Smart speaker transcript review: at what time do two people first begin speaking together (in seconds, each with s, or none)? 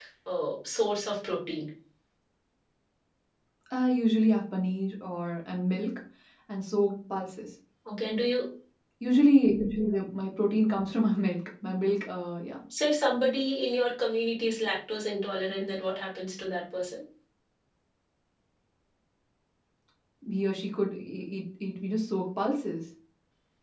none